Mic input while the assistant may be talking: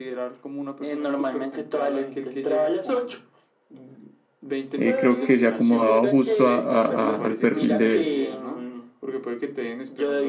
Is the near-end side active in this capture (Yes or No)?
Yes